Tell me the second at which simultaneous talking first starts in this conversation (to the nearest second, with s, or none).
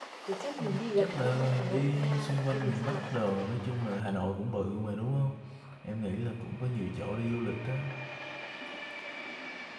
1 s